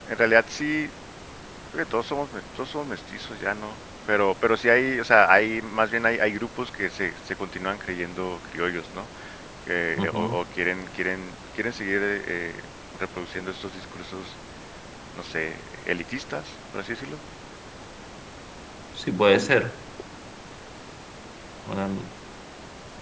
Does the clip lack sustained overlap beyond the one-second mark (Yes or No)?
Yes